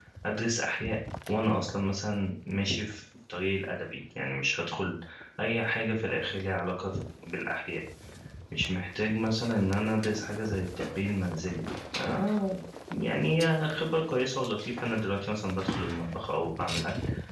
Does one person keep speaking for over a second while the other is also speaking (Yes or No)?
No